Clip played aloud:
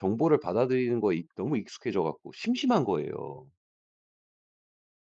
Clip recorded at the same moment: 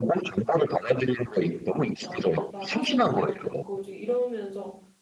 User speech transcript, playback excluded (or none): 뭐 아니면 "나 사진 그거 있는데 보여줄게." 이러면서